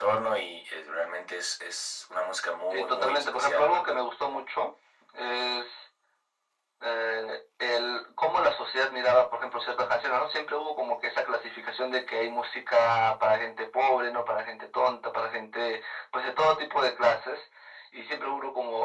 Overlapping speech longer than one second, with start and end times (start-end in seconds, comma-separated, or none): 2.7-4.0